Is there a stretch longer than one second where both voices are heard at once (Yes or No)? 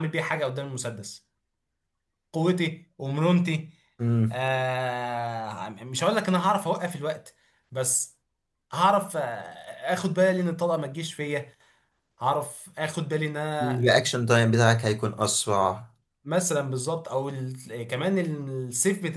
No